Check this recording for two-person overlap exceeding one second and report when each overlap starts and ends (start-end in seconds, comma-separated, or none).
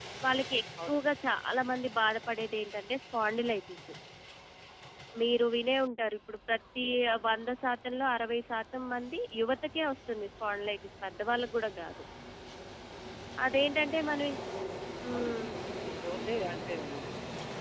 none